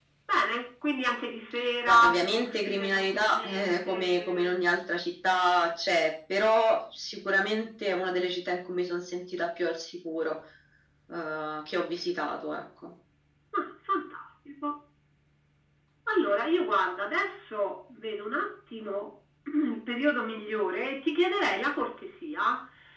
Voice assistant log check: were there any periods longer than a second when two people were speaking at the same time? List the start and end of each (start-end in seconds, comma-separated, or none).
1.9-4.5